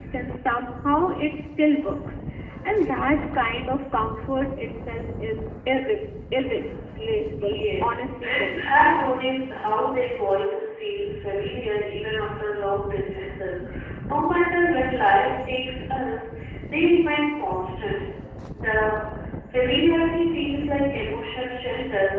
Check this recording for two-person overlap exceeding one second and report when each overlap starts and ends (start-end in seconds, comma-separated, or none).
7.4-8.7